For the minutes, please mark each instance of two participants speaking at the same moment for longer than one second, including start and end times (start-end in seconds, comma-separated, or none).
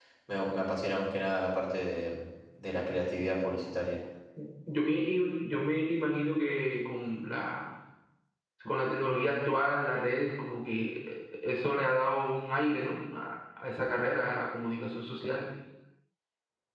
none